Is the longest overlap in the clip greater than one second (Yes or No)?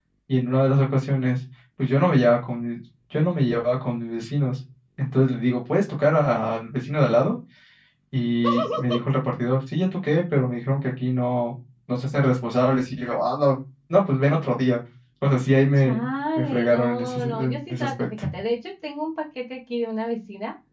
Yes